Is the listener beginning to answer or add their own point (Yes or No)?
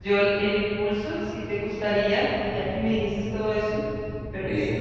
No